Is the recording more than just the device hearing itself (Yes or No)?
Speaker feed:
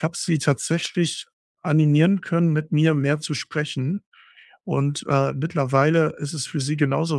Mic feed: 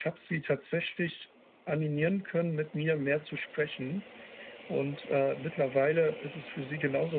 No